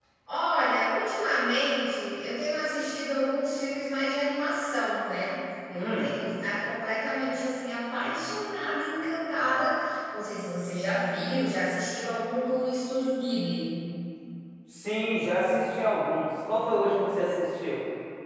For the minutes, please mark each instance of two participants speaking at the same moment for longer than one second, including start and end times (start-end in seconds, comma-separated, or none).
none